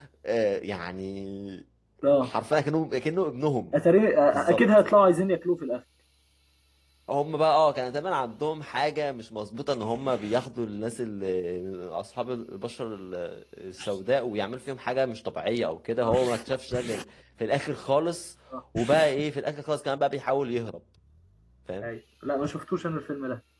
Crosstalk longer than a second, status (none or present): none